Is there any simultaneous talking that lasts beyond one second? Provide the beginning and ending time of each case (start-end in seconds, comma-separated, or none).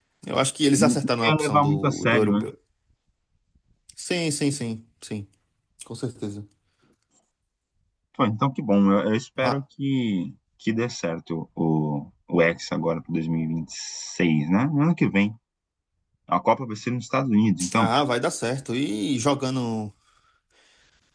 0.8-2.5